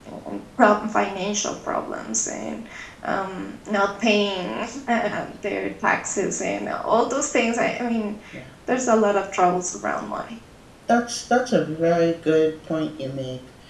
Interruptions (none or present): none